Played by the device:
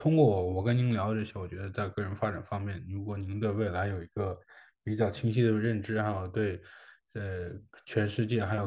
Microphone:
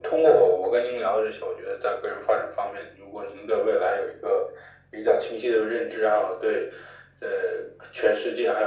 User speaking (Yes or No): No